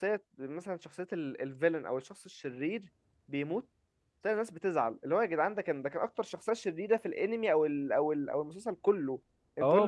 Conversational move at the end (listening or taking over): taking over